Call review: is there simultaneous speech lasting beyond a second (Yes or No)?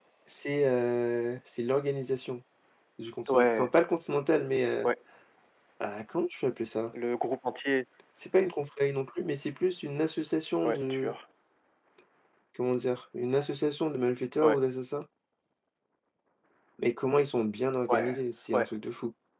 No